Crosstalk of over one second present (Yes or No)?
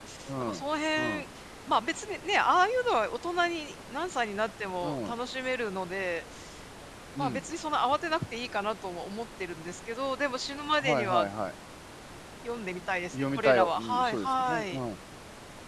Yes